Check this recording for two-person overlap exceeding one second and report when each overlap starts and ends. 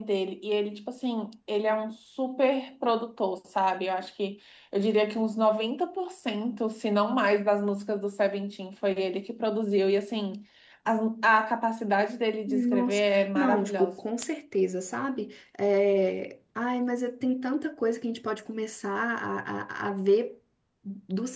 12.5-13.9

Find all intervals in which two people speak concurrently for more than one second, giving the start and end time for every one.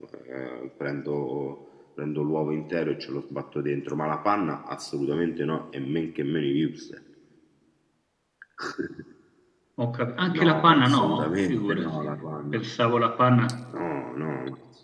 10.4-12.1

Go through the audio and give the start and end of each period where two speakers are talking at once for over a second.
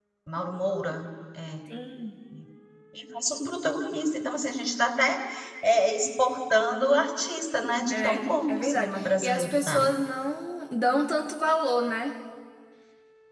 7.9-9.9

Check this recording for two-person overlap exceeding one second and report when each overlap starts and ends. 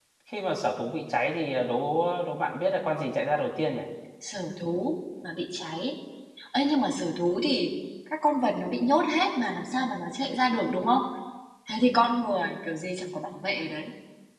none

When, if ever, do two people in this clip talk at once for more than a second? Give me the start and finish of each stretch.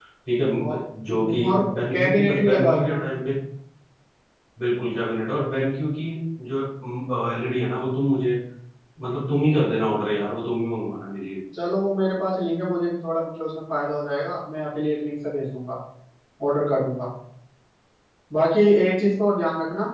0.7-3.0

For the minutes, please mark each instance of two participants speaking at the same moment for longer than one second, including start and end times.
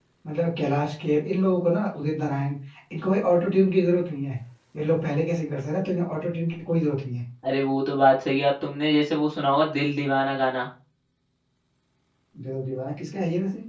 none

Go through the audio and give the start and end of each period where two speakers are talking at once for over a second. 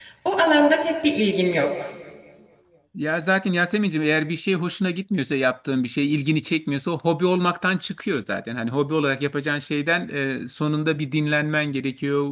none

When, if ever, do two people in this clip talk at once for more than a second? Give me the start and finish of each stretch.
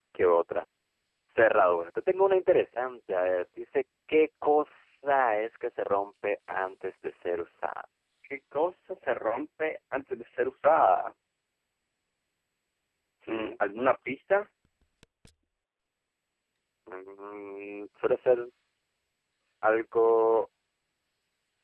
none

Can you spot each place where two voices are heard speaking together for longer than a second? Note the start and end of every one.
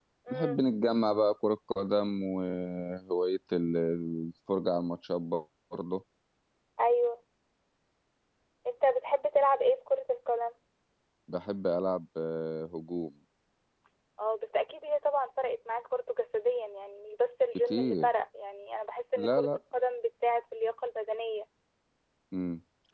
none

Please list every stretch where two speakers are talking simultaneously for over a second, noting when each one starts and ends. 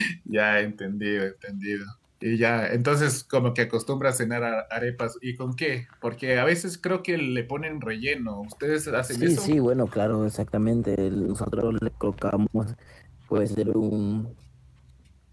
none

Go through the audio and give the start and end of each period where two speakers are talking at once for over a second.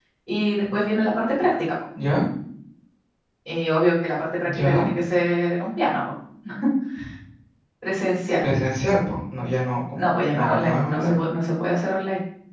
9.9-11.2

